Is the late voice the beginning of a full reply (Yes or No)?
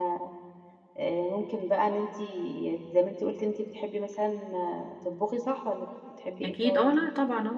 Yes